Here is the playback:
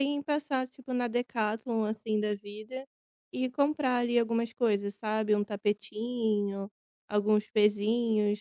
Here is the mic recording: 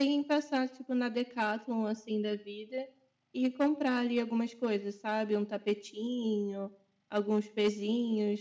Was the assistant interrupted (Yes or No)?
No